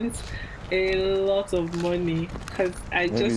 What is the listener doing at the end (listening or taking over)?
taking over